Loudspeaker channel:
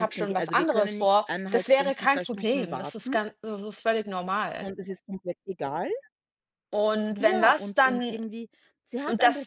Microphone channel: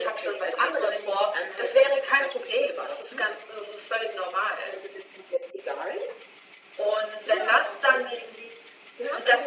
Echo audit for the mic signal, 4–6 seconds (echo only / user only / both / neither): echo only